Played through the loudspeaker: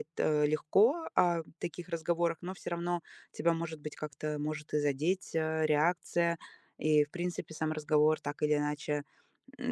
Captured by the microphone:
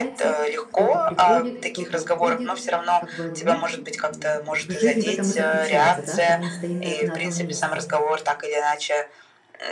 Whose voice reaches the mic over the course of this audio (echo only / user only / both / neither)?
both